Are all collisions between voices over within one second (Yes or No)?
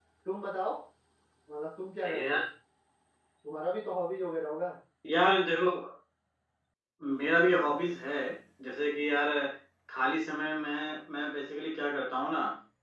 Yes